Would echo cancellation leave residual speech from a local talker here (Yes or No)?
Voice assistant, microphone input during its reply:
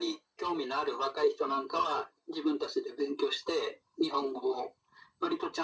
No